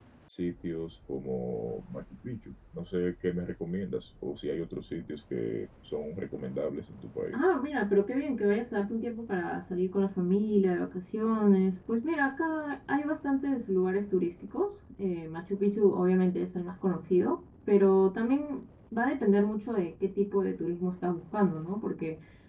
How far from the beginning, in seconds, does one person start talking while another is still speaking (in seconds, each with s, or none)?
none